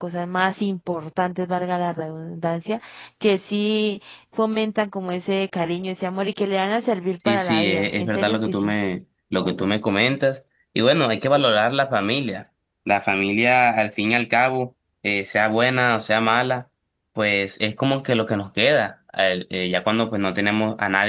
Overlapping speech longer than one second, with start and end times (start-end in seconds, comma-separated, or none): 7.3-8.7